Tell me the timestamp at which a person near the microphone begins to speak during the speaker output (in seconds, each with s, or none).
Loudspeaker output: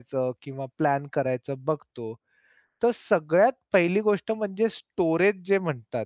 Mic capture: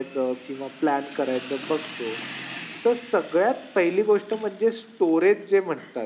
none